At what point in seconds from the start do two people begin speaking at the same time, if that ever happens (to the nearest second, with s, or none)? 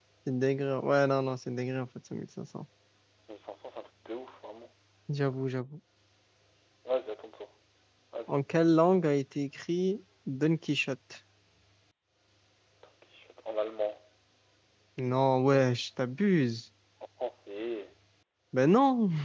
none